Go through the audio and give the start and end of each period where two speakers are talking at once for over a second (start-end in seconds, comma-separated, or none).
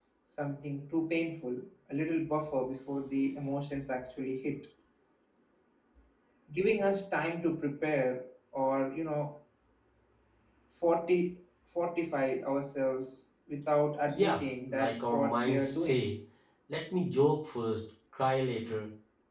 14.1-16.0